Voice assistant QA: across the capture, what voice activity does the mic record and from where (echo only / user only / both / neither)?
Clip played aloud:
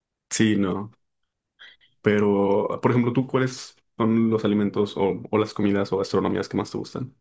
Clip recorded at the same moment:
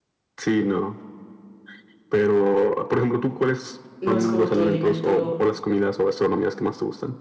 both